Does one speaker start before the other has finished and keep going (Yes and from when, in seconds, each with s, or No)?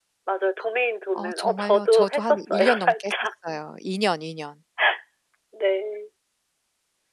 Yes, from 1.1 s